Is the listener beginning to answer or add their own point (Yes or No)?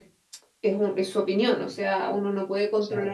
No